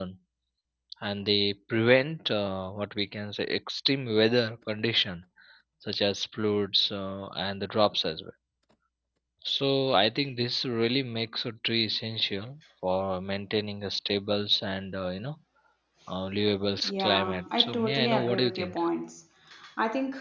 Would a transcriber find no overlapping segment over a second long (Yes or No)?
No